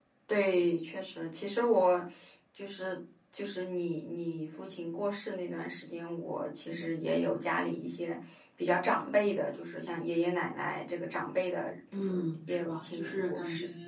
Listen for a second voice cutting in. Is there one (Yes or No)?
Yes